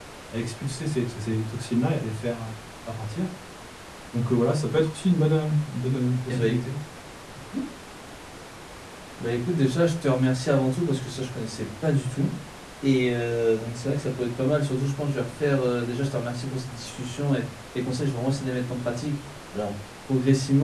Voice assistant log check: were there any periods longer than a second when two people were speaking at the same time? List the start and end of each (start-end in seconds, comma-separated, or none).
none